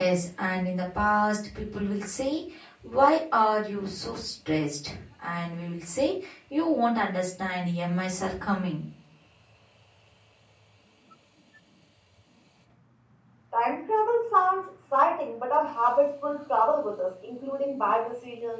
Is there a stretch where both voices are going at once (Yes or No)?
No